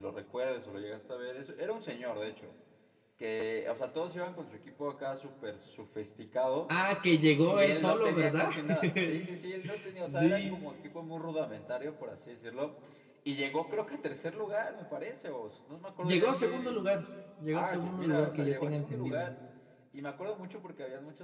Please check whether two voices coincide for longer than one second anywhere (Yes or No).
Yes